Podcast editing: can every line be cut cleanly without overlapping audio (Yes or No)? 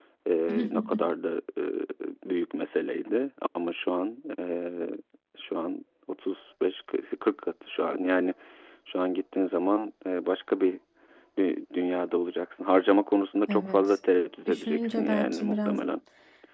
No